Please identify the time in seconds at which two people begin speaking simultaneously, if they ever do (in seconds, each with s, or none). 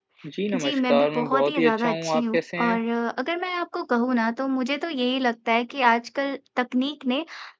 0.5 s